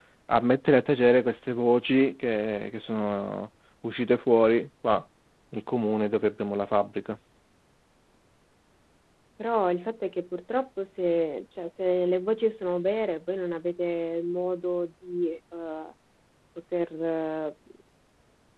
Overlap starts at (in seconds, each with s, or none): none